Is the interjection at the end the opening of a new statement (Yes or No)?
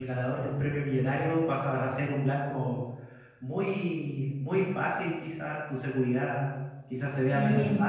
No